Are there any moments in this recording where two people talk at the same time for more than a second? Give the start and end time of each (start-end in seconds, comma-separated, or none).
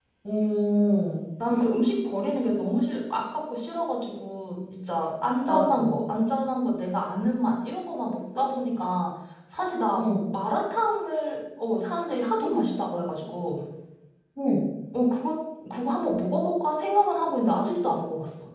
none